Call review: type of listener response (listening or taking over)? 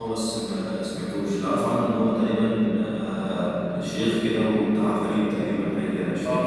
taking over